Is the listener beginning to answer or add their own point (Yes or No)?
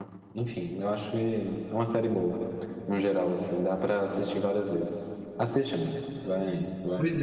Yes